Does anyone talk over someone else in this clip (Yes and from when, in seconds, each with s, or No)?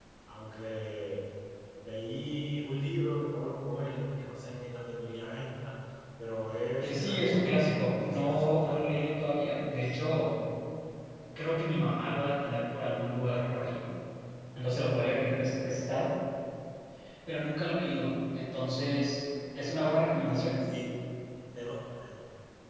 Yes, from 6.8 s